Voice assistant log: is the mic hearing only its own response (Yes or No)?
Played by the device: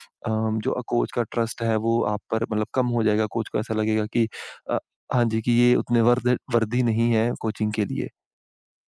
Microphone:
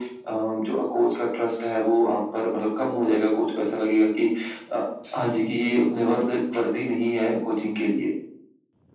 No